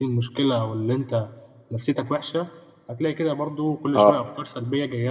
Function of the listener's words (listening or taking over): listening